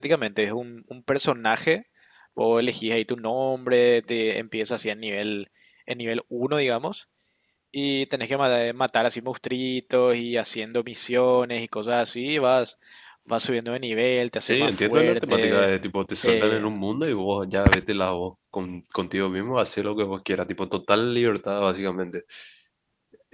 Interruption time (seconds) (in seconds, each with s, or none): 14.4 s